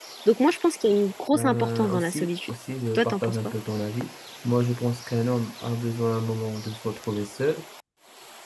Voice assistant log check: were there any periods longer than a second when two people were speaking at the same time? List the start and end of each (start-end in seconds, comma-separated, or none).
1.3-2.5